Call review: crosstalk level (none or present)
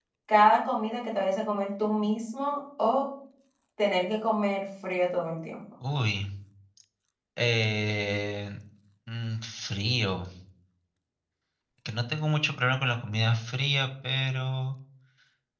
none